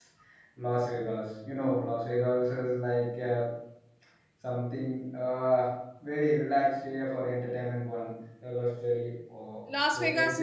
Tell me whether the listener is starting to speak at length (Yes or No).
Yes